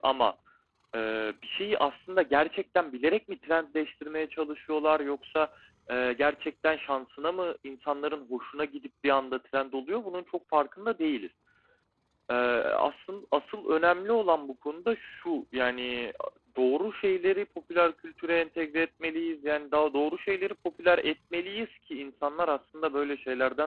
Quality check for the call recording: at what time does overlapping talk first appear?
none

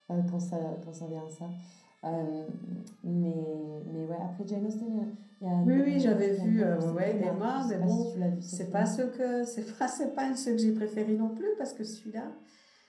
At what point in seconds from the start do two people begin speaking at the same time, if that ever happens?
6 s

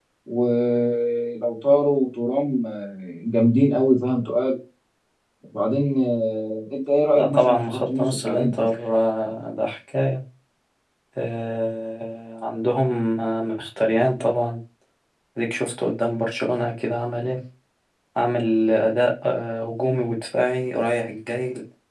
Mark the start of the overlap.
7 s

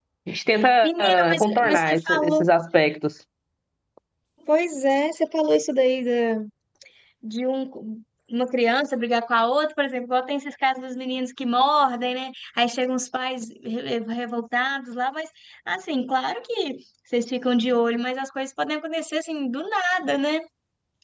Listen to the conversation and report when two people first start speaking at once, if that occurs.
1 s

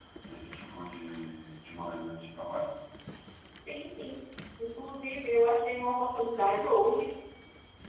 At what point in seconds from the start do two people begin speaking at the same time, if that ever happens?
none

